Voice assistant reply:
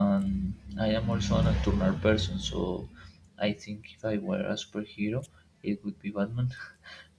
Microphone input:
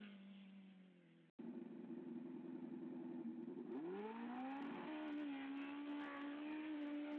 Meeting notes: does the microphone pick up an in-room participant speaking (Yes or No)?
No